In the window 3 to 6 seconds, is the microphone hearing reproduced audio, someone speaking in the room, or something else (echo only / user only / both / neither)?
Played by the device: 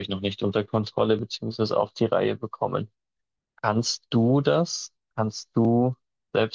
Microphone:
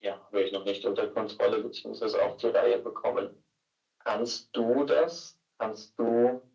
echo only